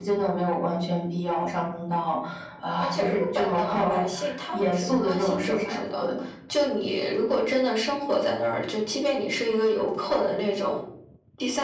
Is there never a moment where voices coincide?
No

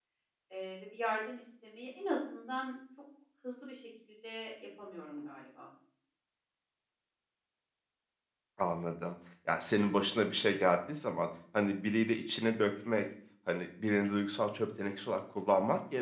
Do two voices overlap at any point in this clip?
No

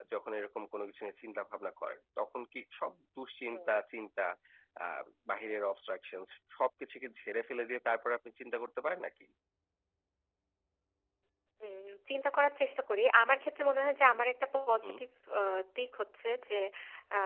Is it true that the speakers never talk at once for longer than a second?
Yes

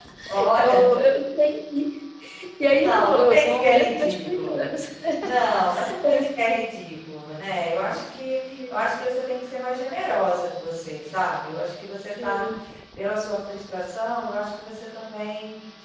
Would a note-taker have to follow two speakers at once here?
Yes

